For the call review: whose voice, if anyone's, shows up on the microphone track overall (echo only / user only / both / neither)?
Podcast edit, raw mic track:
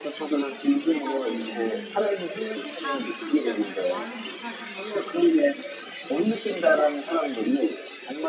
both